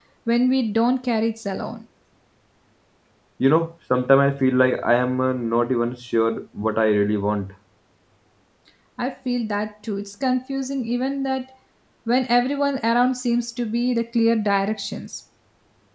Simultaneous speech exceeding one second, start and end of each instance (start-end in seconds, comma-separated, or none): none